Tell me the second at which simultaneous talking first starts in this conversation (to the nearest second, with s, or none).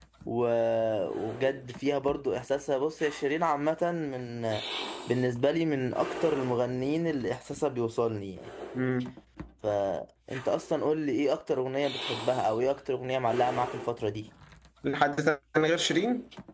none